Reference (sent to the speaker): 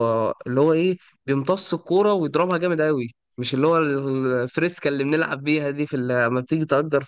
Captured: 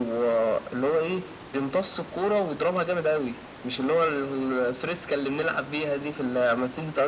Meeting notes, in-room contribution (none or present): none